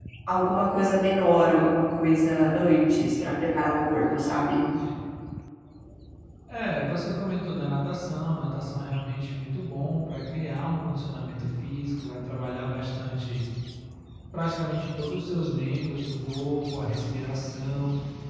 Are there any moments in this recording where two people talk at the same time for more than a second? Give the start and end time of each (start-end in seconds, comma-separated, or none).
none